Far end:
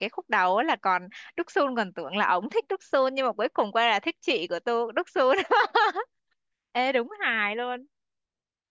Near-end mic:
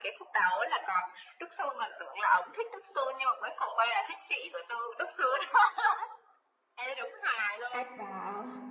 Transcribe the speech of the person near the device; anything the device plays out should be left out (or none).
Ai vào?